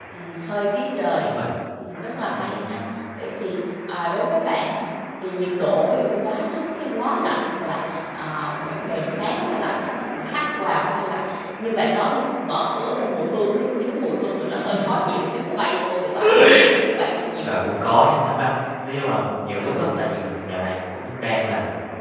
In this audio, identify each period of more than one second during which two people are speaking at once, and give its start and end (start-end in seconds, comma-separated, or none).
none